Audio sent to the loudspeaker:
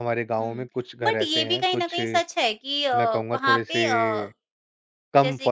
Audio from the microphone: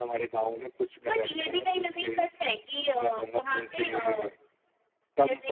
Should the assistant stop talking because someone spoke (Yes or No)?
No